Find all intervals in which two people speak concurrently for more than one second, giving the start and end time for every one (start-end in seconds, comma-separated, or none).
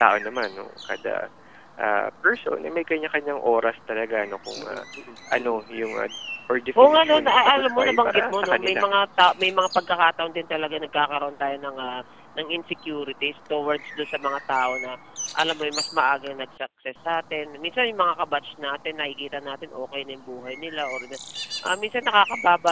6.8-8.8